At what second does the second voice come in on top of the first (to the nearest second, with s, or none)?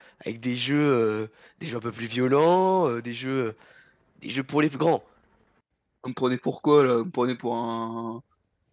none